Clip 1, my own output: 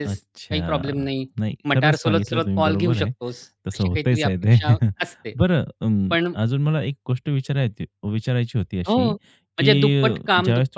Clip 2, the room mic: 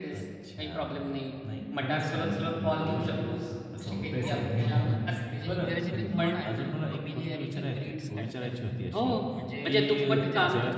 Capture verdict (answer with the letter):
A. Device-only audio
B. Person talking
B